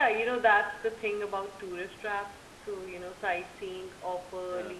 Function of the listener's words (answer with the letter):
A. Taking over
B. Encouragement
B